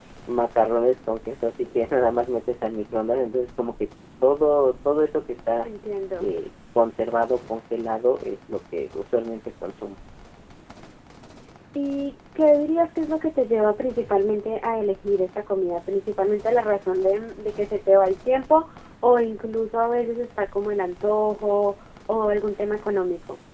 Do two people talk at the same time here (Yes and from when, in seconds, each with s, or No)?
No